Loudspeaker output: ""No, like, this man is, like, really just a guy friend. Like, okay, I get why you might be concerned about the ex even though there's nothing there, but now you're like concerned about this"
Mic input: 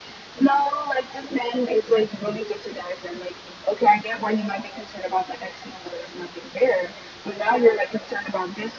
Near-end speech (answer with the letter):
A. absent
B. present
A